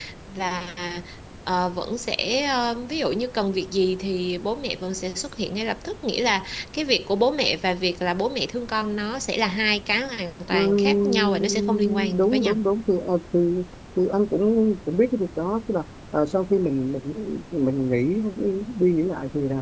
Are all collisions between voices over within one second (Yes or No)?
No